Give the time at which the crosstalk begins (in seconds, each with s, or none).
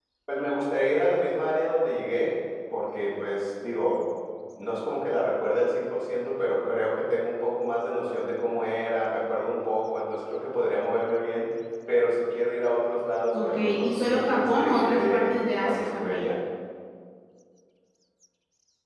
13.3 s